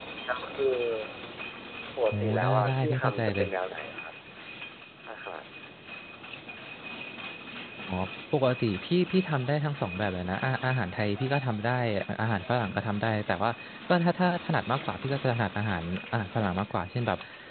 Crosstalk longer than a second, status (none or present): present